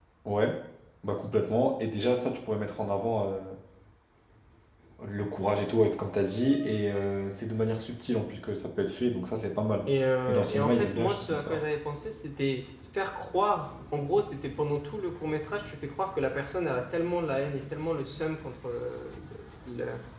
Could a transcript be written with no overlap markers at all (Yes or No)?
No